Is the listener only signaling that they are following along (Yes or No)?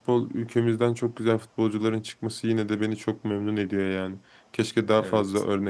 Yes